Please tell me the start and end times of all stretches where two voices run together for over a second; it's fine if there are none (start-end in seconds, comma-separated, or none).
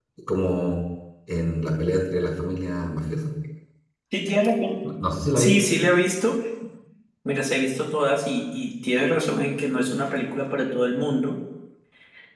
none